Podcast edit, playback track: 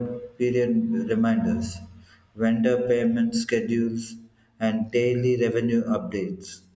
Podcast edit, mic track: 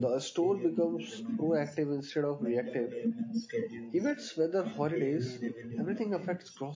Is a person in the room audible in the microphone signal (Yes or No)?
Yes